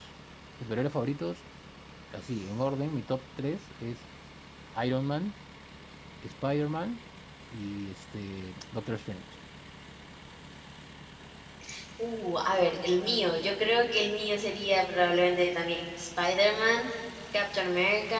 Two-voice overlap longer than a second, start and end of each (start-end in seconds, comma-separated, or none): none